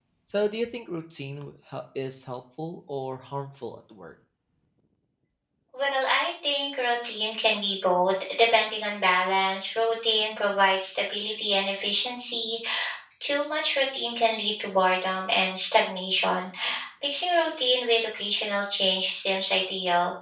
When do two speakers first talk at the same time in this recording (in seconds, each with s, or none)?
none